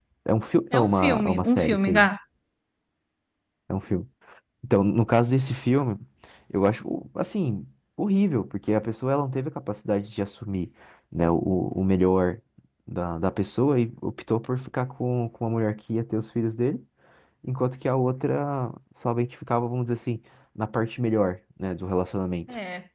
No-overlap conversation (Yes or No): No